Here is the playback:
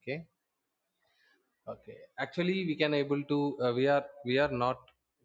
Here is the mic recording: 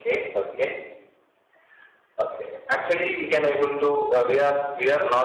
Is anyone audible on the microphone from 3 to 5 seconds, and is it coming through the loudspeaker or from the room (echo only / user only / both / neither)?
echo only